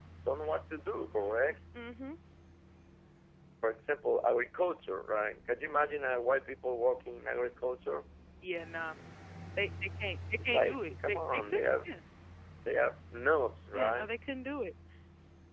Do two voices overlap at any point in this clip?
Yes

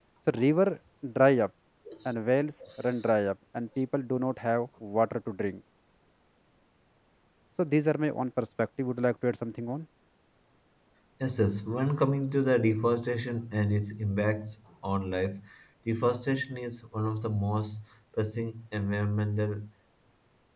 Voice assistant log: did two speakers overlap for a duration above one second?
No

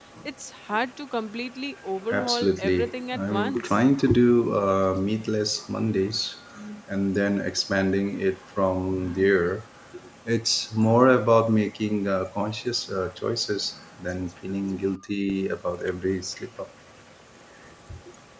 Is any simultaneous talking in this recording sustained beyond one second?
Yes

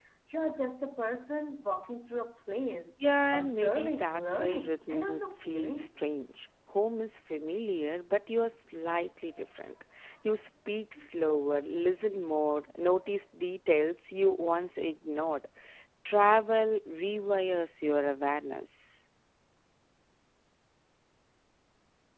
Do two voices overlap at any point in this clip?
Yes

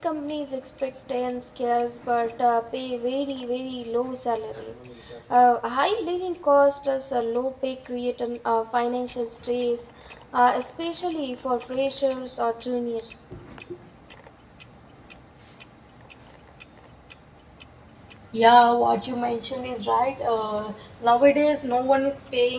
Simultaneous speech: No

